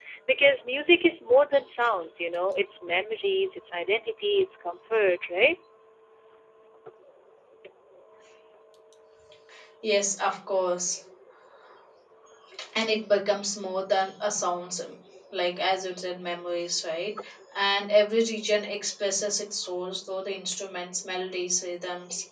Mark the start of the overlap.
none

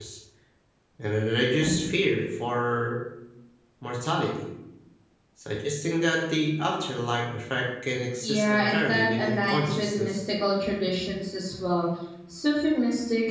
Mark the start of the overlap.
8.2 s

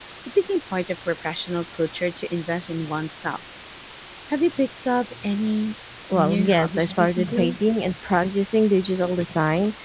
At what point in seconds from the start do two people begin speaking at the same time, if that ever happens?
6.2 s

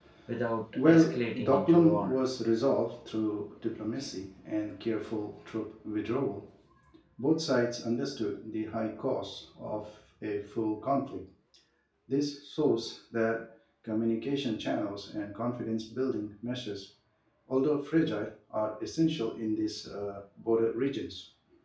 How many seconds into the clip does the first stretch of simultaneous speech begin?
0.9 s

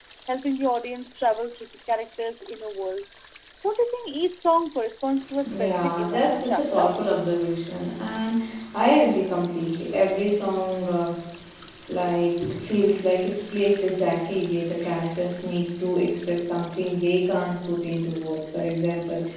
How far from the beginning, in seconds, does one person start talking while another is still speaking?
5.4 s

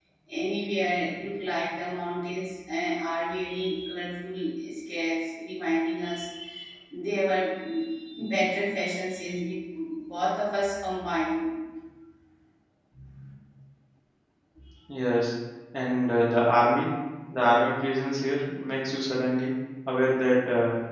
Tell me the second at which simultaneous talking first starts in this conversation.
none

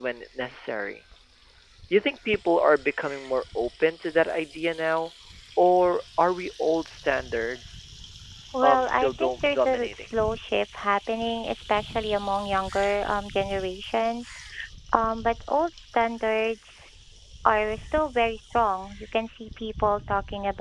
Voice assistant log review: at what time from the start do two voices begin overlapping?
8.6 s

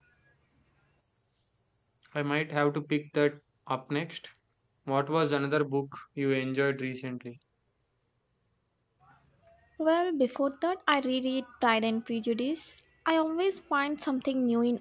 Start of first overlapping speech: none

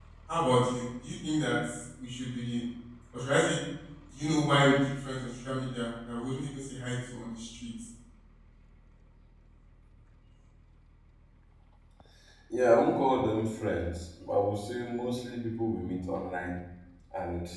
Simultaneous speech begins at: none

